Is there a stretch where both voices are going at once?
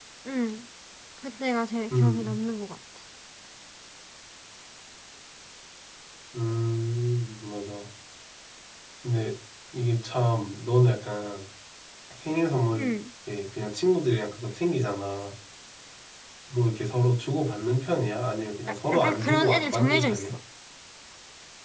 Yes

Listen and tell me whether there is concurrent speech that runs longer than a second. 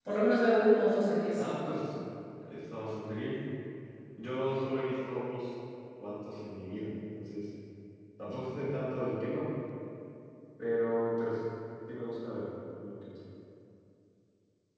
No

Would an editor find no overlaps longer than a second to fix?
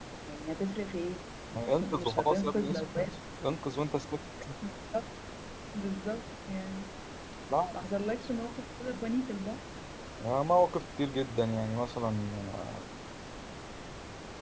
No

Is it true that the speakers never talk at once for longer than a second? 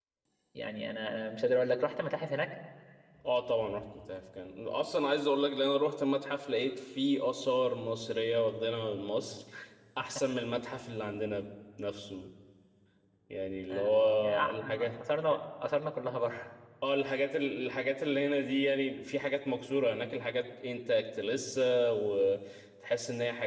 No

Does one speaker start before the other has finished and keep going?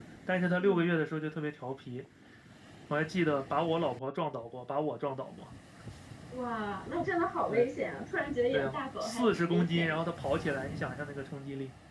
Yes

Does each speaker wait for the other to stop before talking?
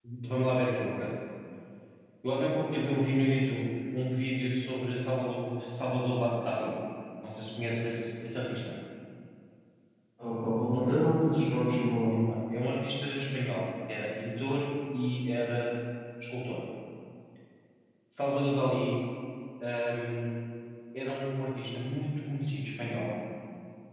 Yes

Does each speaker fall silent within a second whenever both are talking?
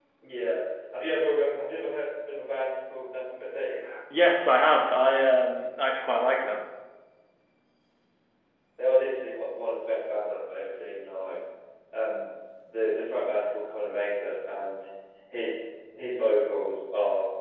Yes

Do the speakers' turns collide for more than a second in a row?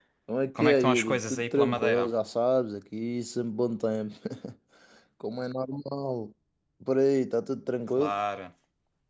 Yes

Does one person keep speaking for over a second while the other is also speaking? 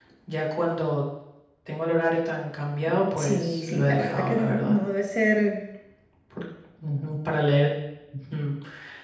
Yes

